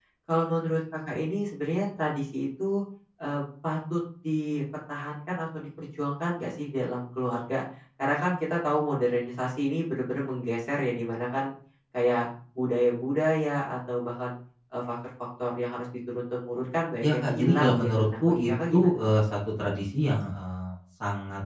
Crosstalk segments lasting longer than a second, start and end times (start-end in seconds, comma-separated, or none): 17.0-19.0